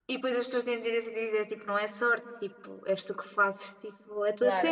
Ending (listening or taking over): taking over